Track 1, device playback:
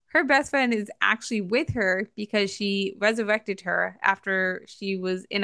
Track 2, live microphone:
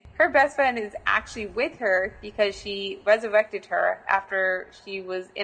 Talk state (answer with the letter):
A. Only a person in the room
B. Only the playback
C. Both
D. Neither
B